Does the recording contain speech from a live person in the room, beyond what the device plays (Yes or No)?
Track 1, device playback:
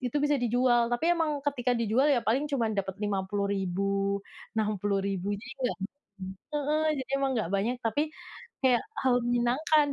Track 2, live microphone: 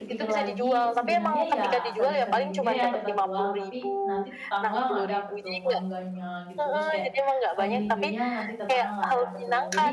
Yes